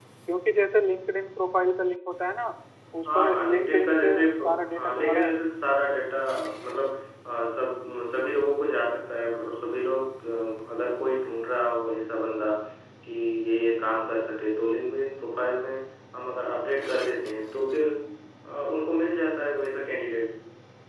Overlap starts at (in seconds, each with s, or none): 3.1 s